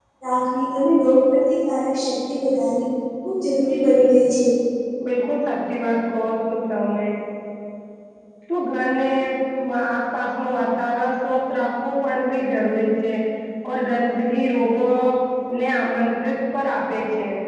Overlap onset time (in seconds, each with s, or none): none